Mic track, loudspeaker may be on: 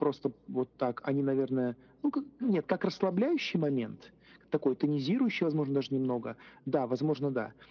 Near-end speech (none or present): none